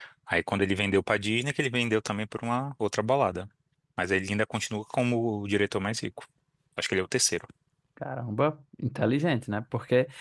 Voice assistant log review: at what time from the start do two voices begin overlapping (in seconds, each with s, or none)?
none